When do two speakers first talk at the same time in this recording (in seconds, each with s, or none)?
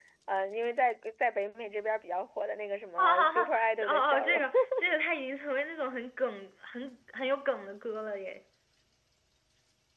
3.0 s